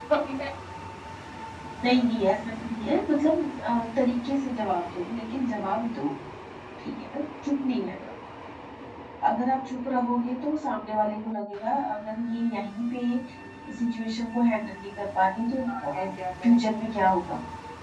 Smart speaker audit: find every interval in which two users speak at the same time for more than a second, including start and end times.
none

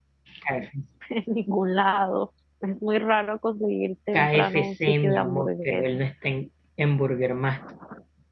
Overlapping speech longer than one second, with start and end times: 4.1-5.8

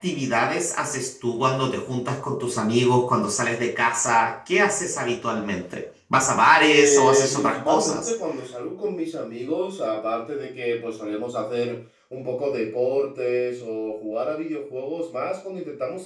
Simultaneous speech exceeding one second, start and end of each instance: 6.6-8.1

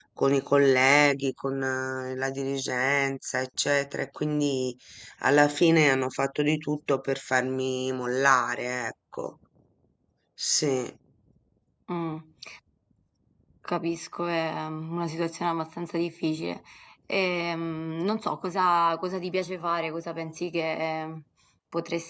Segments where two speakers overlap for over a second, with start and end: none

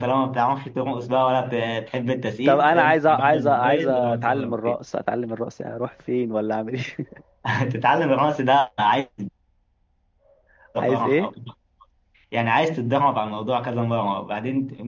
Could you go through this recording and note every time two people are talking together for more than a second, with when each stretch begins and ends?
2.4-4.8

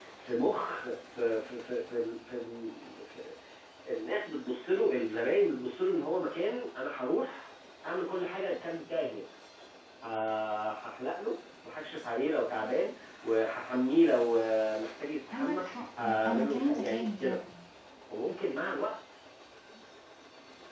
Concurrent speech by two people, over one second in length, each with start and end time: 16.0-17.4

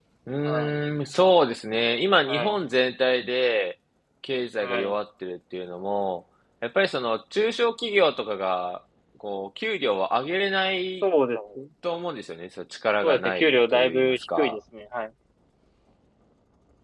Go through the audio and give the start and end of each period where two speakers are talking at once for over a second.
13.0-14.6

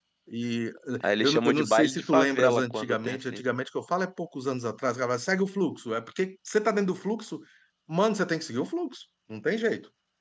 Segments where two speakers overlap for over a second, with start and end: 1.2-3.4

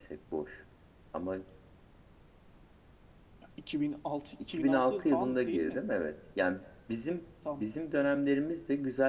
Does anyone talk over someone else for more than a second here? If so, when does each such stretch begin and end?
4.5-5.8

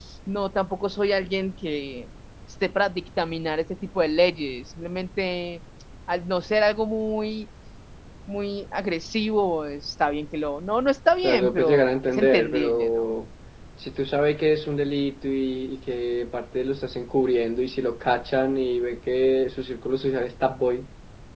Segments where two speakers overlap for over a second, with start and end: 11.2-13.2

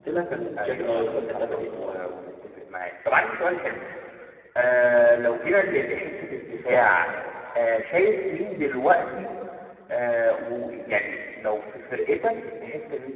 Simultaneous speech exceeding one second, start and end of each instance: 0.6-1.9

